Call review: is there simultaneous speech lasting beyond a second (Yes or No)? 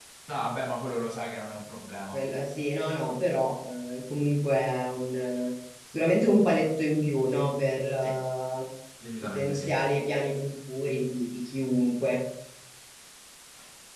No